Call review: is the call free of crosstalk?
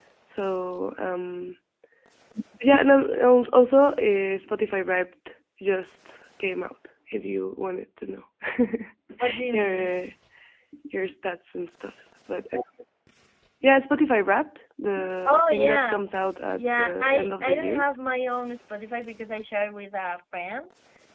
No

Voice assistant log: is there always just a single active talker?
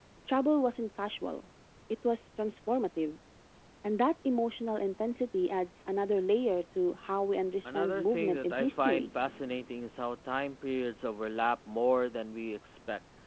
No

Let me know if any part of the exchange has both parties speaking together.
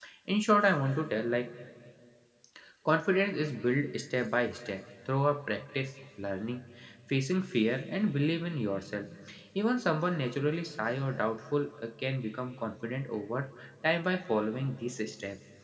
No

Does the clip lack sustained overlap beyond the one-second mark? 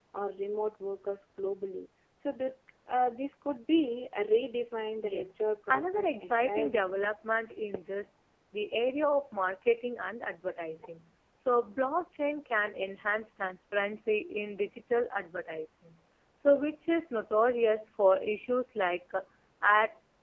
No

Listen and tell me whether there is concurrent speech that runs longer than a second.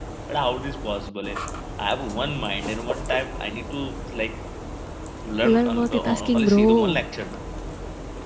Yes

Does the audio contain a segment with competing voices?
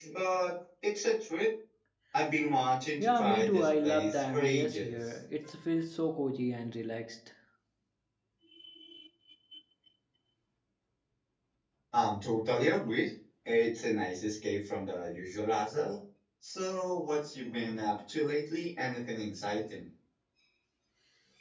Yes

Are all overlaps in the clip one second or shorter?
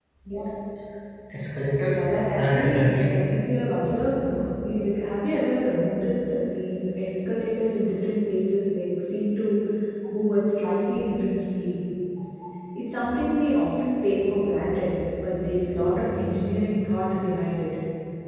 No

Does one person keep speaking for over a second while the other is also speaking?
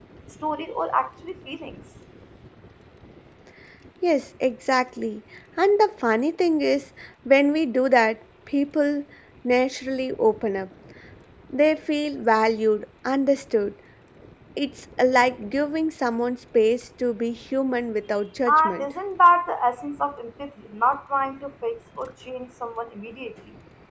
No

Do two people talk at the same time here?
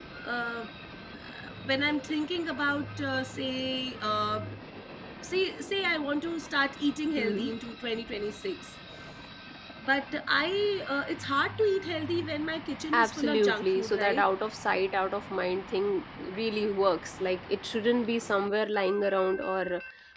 Yes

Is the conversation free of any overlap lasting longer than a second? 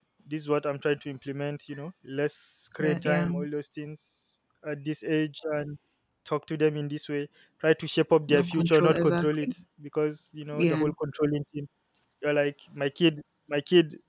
No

